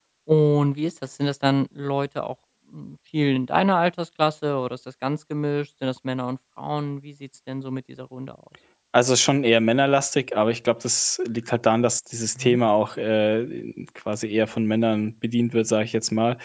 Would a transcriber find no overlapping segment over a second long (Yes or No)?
Yes